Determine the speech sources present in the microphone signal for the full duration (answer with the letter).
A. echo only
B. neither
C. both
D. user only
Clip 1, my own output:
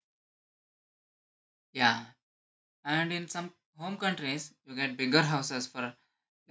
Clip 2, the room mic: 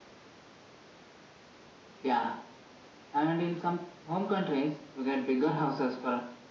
A